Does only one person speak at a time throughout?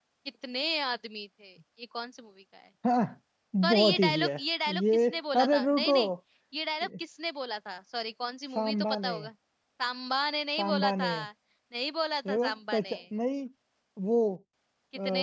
No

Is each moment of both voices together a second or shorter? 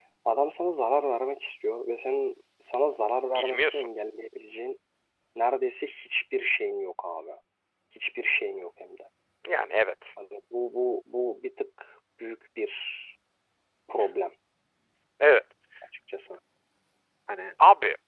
Yes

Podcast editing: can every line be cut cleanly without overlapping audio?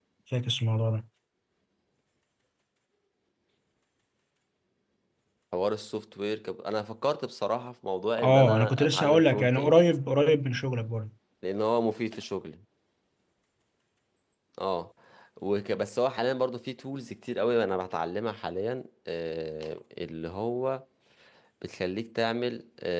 No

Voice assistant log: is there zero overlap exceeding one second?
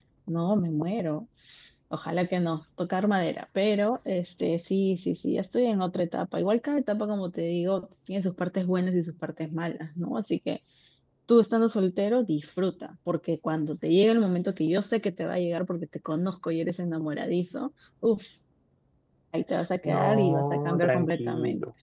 No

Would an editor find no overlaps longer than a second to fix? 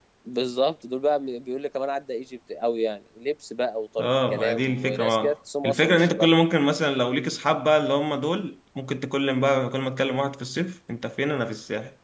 No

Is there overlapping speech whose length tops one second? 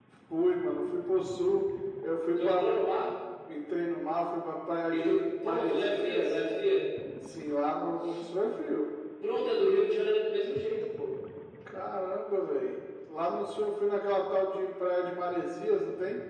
Yes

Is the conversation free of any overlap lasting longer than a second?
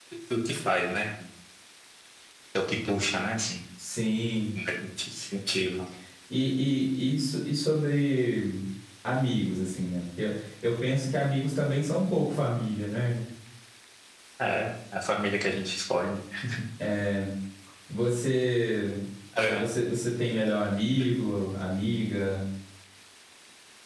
Yes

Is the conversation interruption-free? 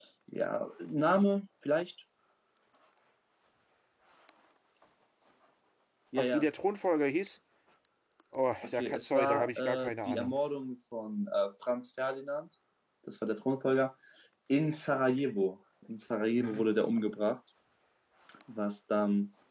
No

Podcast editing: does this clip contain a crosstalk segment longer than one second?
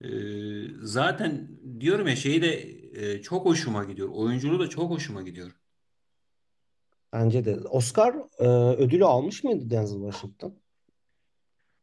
No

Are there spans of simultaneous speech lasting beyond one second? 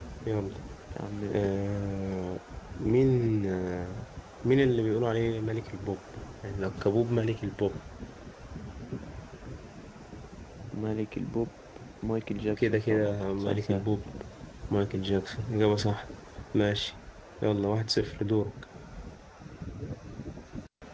Yes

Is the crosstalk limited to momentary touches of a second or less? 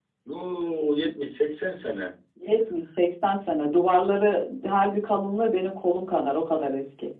Yes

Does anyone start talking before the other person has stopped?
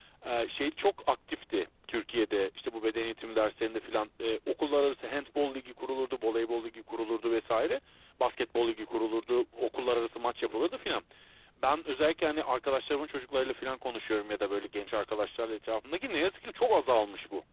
No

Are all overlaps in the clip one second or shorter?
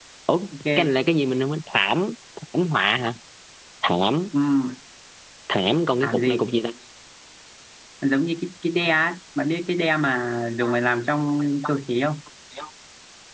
Yes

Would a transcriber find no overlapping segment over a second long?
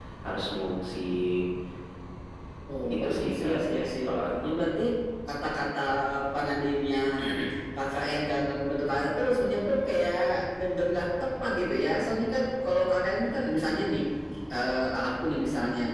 No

